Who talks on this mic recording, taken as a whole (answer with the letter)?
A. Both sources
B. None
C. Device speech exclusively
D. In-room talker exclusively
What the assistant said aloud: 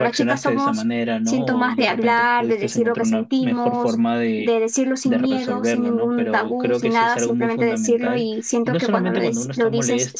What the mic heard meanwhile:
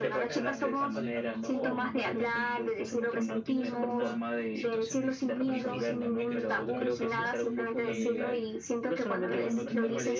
A